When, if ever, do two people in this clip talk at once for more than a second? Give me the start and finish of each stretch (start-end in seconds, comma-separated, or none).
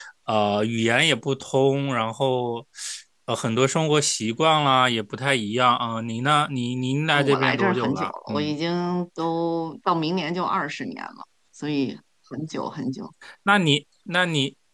7.1-8.5